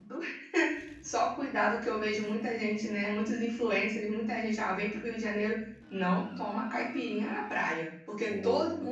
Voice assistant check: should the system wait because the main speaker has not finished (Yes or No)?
Yes